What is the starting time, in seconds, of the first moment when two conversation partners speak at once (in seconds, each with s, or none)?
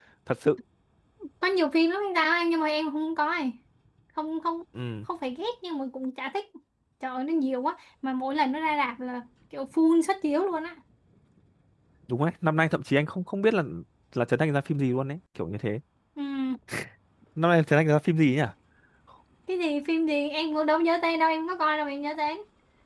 none